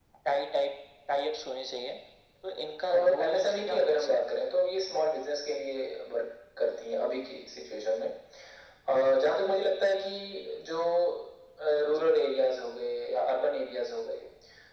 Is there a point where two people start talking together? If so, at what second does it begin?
3 s

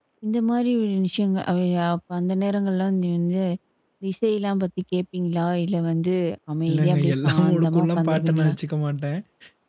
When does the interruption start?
7 s

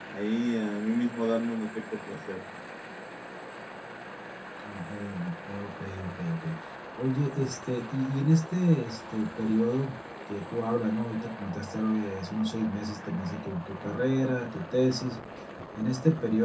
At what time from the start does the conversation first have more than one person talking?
none

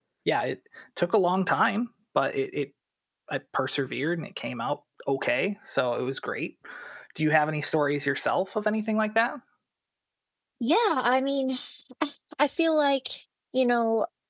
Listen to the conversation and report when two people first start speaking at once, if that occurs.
none

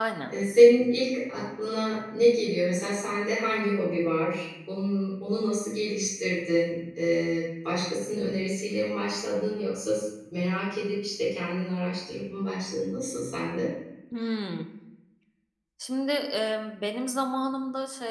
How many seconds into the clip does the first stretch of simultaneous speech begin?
none

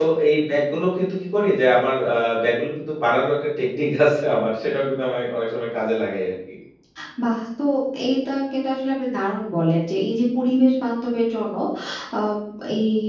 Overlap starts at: none

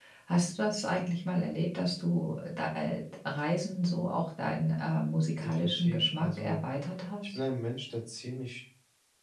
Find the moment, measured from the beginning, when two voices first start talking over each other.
5 s

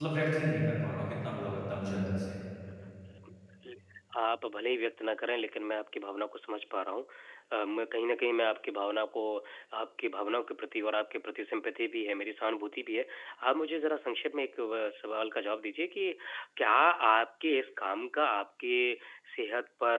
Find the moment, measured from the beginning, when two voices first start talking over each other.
none

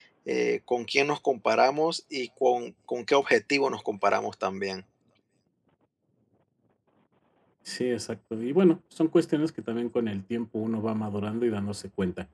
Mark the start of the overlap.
none

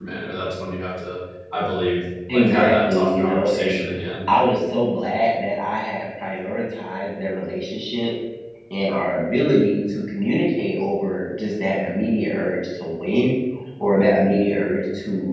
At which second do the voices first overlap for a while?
2 s

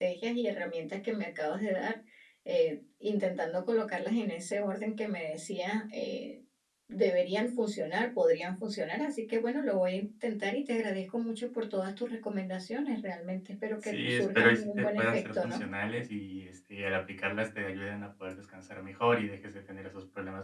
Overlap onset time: 14 s

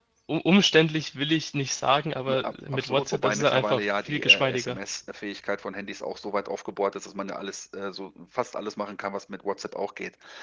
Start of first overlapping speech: 2 s

